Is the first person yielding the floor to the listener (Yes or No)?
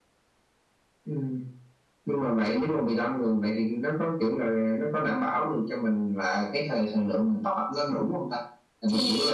No